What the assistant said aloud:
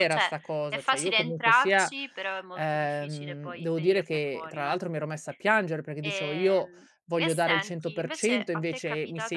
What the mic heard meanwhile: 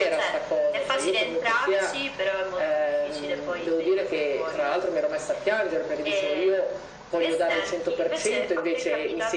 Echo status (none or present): present